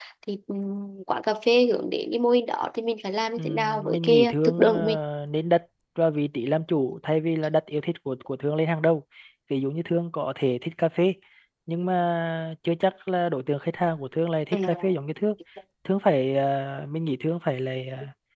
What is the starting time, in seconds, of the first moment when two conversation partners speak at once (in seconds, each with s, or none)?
3.4 s